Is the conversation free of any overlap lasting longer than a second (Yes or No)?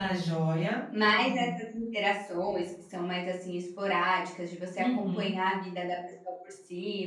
Yes